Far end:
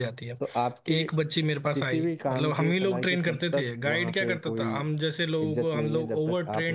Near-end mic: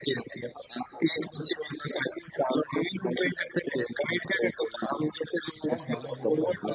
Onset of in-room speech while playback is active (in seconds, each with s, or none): 5.7 s